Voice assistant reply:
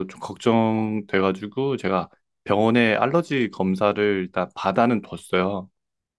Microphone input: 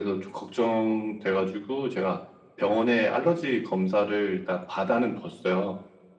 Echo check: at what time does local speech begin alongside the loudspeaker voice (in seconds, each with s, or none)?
none